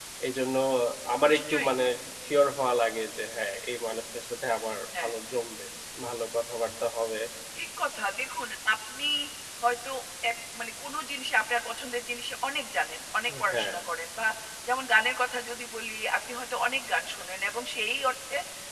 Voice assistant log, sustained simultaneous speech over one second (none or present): none